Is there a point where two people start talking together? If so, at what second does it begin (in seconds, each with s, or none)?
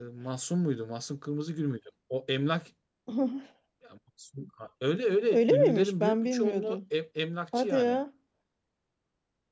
5.3 s